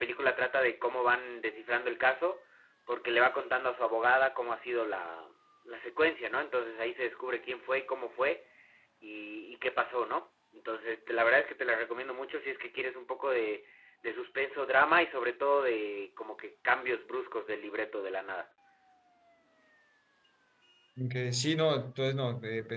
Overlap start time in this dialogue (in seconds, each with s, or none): none